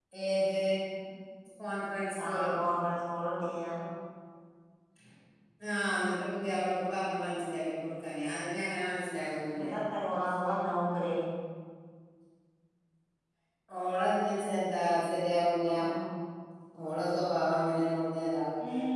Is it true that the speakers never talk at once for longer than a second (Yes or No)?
Yes